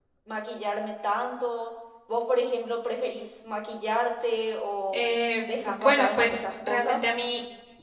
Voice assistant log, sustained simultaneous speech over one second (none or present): present